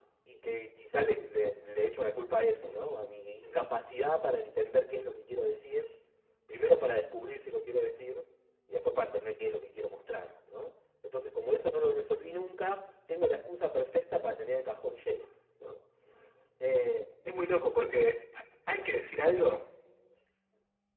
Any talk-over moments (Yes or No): No